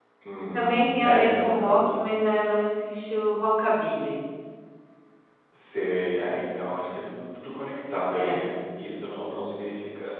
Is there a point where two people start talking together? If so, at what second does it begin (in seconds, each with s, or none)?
0.5 s